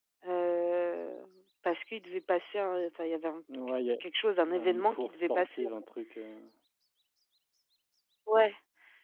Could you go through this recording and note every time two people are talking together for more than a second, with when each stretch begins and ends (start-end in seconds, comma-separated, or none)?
4.5-5.7